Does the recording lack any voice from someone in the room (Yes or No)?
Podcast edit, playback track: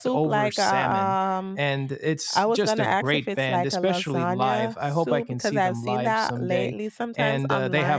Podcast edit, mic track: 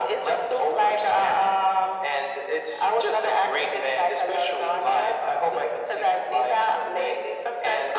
Yes